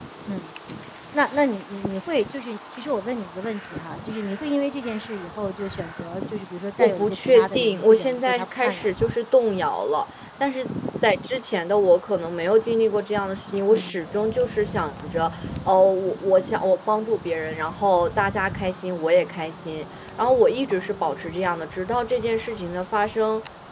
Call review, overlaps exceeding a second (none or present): present